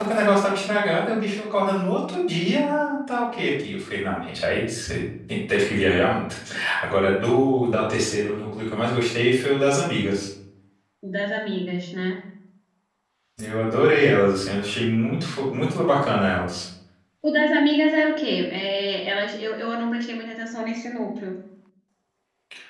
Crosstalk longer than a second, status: none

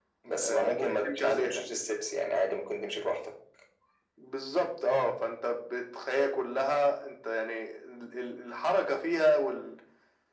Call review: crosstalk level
present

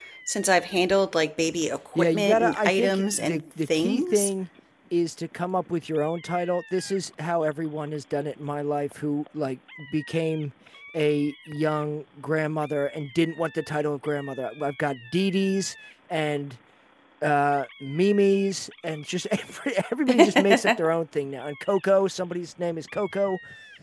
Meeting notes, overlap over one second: present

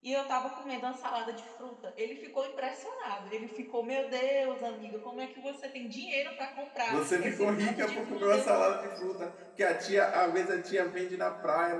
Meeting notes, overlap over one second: present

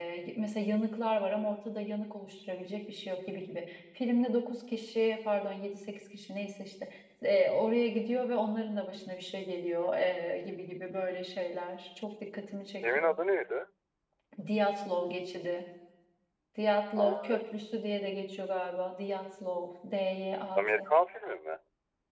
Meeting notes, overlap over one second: none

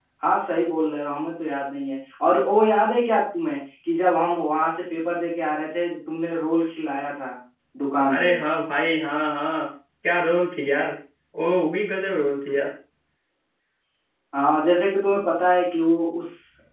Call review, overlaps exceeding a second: none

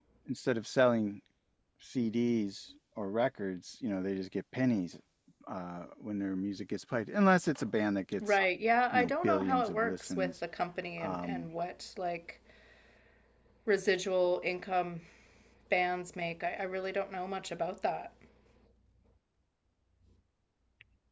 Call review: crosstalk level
present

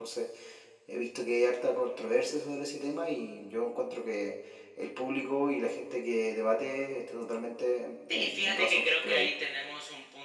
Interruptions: present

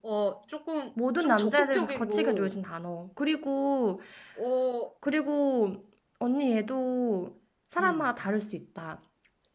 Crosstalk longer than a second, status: present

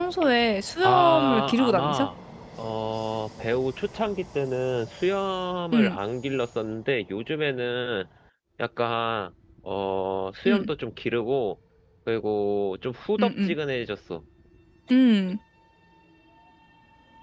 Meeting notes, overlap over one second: present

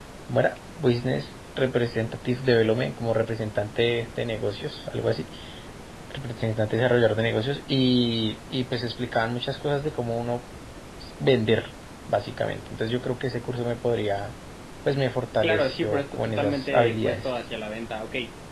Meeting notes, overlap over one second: present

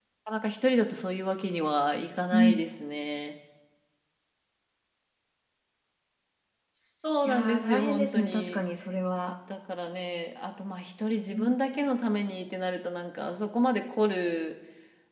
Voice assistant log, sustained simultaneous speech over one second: present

